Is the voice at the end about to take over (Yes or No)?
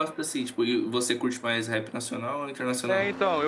Yes